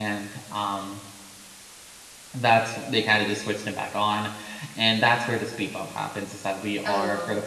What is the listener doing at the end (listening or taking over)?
listening